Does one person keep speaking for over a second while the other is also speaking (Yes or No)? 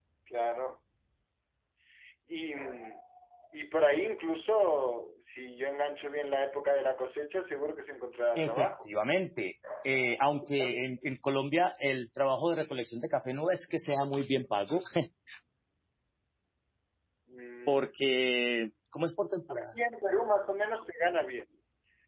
No